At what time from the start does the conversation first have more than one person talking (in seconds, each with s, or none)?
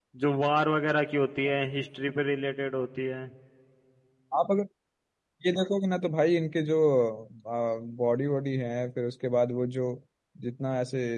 none